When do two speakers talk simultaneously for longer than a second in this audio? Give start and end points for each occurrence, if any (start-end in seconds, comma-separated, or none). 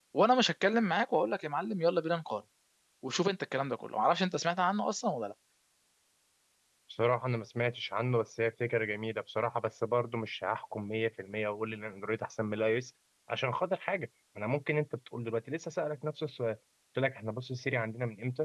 none